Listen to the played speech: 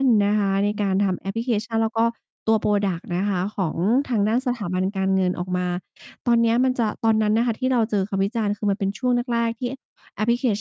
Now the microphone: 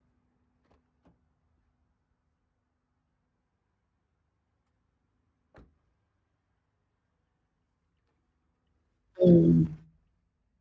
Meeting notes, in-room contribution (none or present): present